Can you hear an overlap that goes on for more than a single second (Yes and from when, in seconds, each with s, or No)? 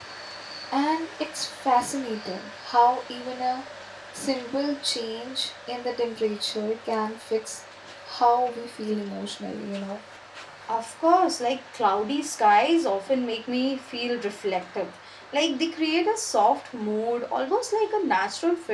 No